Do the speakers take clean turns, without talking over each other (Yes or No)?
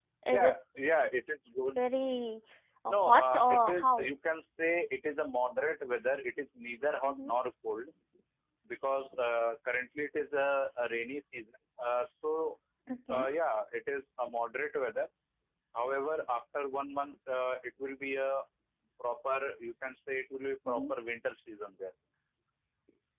No